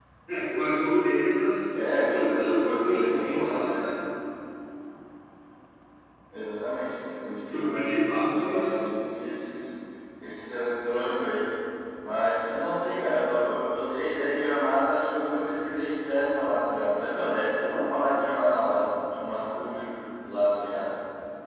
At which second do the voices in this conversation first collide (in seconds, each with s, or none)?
1.7 s